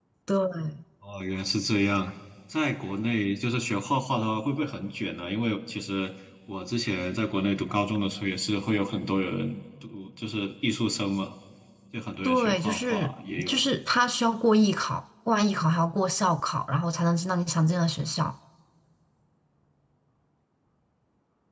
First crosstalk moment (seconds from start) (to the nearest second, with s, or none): 12 s